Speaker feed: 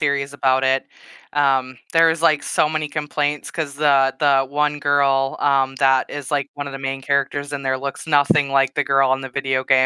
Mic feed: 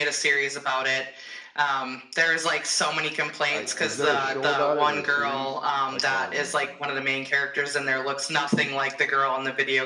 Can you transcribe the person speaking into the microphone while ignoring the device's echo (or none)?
I is there a show about it or a series? Like, on